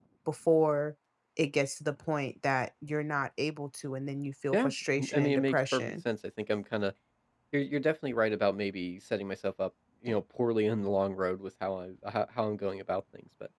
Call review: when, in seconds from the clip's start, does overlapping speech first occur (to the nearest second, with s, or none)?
5 s